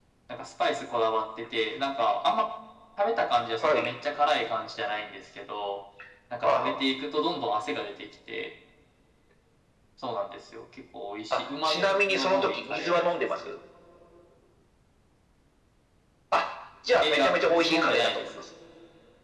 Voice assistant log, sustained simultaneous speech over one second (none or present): present